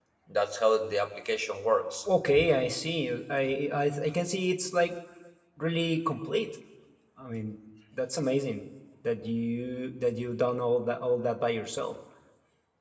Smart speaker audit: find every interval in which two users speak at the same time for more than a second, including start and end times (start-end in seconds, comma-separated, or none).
none